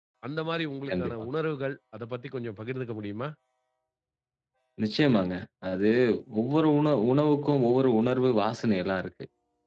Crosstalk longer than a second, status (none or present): none